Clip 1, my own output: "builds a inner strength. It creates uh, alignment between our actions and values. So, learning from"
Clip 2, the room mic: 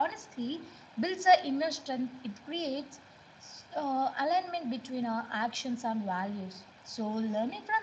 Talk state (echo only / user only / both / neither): echo only